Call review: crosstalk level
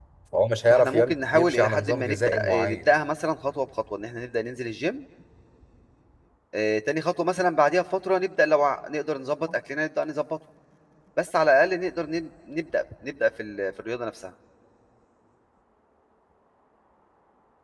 present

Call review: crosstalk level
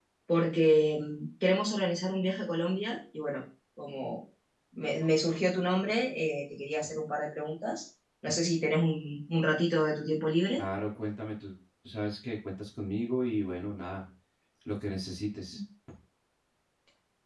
none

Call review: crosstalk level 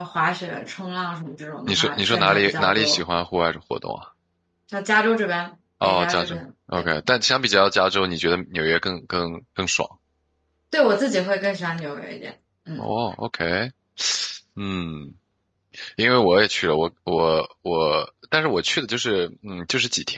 present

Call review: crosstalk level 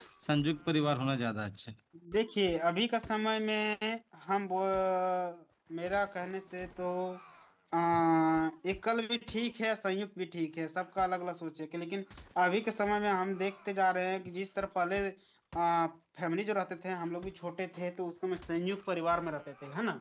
none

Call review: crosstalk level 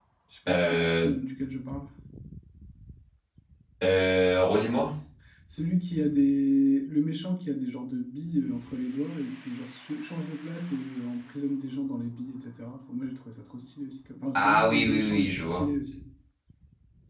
present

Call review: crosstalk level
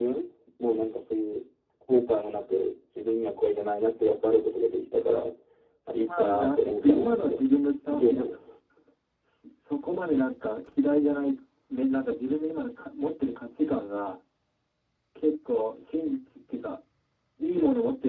present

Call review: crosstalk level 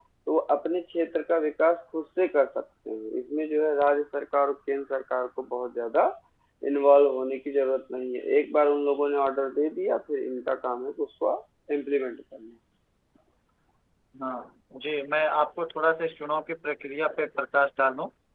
none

